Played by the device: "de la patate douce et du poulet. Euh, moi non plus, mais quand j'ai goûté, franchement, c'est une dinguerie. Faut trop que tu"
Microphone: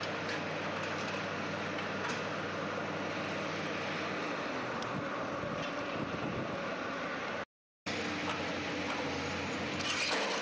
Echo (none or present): none